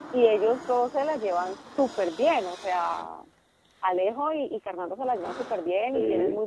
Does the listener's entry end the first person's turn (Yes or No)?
No